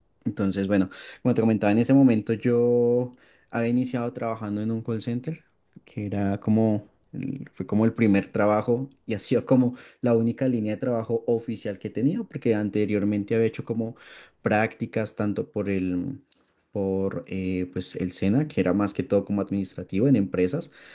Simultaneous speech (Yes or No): No